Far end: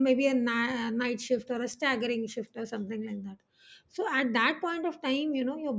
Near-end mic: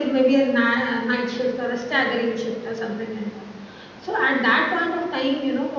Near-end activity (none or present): none